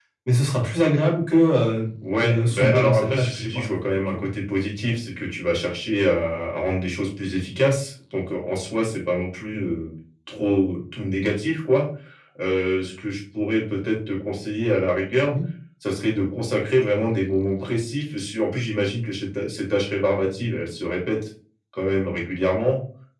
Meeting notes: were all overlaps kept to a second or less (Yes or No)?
No